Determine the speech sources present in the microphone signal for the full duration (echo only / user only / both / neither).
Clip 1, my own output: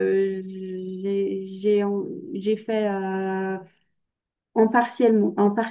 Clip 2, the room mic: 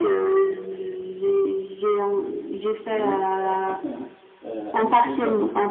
both